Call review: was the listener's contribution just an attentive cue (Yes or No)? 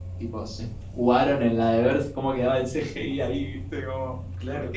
No